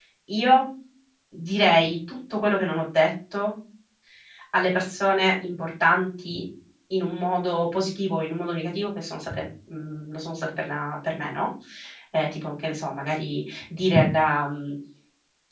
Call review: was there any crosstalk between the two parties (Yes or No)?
No